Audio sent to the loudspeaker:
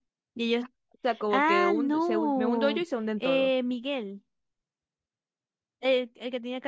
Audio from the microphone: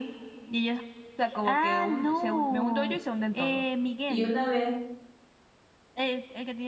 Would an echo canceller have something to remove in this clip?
Yes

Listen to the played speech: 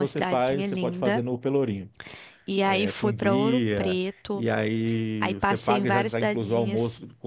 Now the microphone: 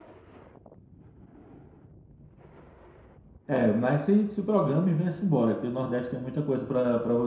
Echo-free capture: Yes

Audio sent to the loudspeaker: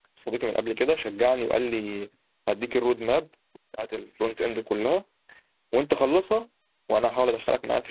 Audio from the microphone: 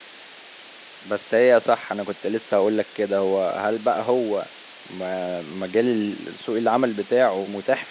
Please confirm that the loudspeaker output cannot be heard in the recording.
Yes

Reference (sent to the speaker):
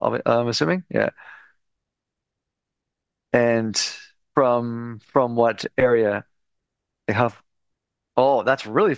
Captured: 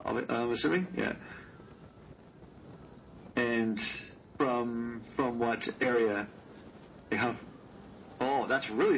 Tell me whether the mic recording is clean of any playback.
No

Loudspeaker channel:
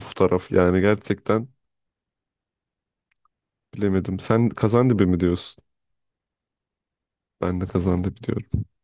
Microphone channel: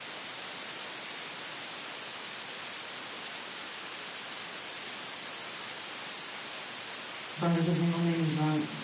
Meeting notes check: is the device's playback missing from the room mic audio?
Yes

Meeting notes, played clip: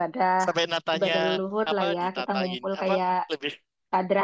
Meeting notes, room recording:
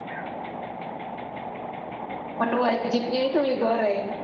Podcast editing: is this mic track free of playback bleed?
Yes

